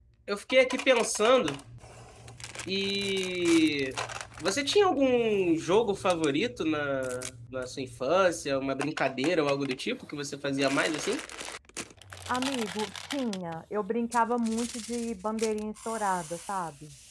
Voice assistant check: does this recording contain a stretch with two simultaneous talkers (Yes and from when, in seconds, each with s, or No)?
No